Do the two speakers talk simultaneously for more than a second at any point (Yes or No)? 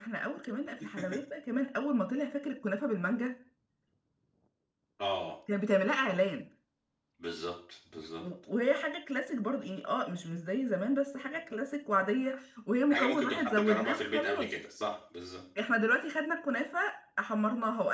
Yes